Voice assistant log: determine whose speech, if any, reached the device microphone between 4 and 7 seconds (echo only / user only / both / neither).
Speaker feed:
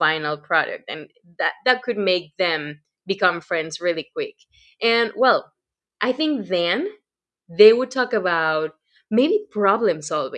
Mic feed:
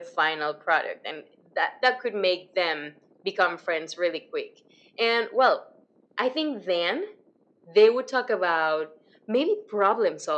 echo only